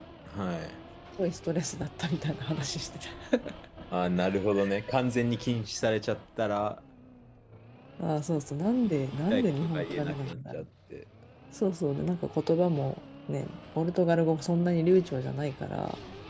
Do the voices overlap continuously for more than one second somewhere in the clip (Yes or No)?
Yes